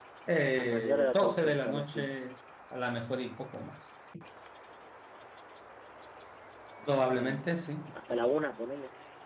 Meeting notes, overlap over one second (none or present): present